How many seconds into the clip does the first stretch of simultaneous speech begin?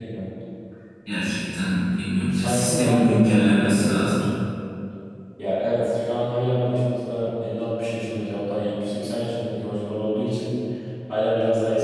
2.3 s

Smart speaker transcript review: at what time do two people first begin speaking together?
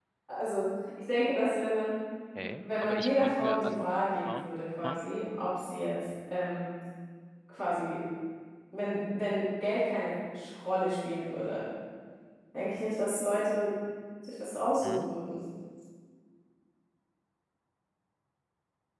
2.6 s

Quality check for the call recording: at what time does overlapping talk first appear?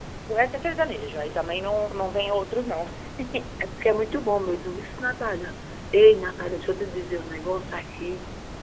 none

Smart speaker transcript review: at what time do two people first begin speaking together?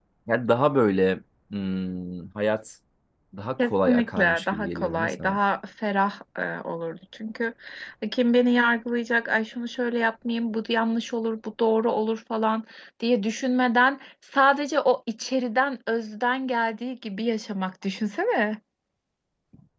3.6 s

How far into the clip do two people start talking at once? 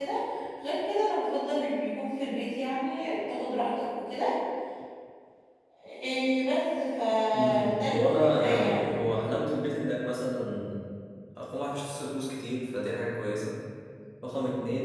7.3 s

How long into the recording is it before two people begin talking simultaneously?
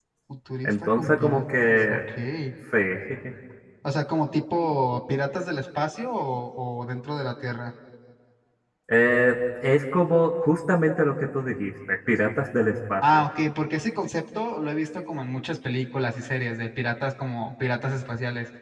0.7 s

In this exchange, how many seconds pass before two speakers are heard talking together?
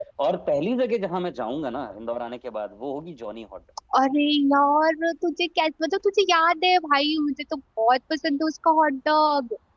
none

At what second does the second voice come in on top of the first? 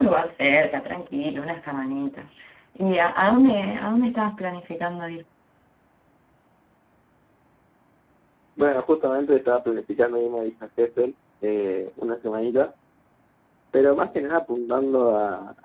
none

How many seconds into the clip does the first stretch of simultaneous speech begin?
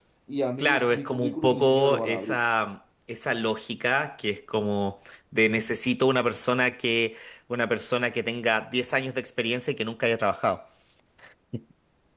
0.6 s

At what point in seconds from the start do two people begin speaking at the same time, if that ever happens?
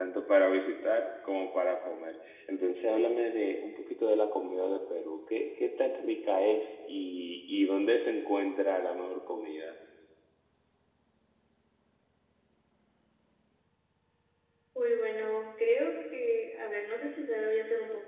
none

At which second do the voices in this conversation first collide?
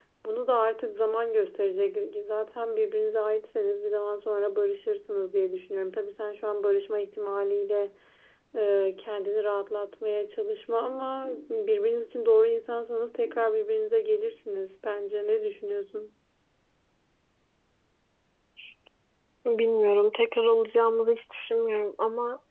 none

